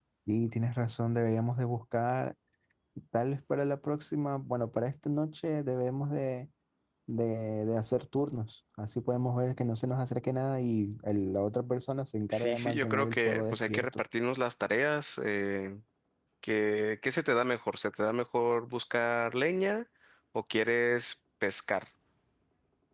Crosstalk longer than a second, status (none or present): present